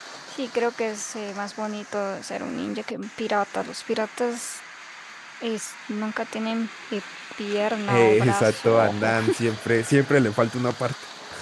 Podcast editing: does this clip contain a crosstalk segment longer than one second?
Yes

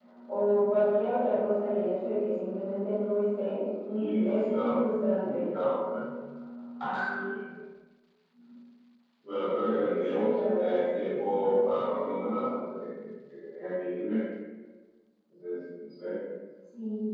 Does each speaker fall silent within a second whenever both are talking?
No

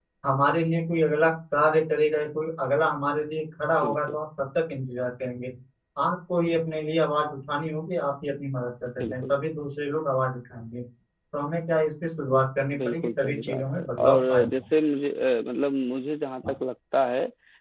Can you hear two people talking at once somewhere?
Yes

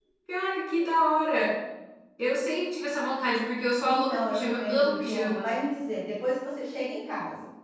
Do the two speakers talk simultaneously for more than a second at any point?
Yes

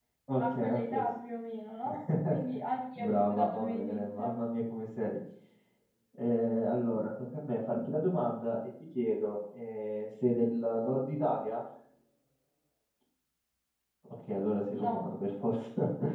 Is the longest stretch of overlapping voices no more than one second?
No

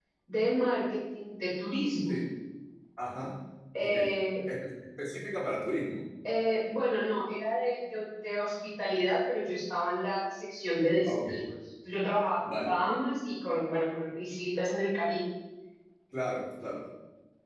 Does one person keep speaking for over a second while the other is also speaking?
No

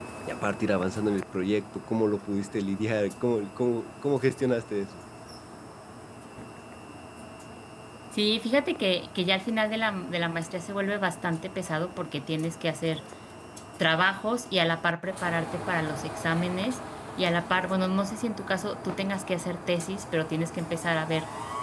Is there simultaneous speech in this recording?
No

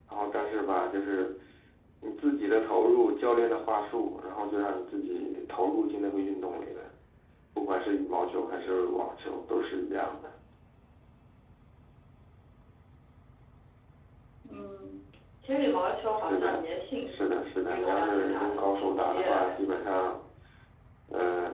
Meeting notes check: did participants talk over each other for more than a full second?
Yes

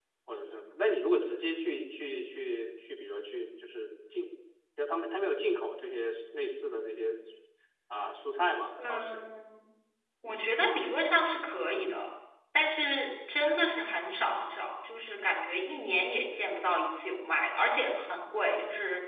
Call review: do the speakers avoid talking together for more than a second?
Yes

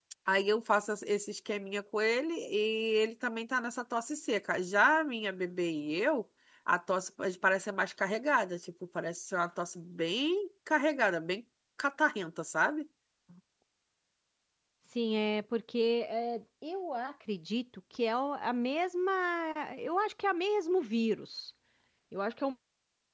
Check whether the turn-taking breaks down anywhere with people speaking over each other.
No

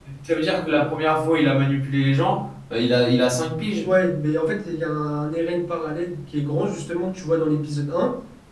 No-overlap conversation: Yes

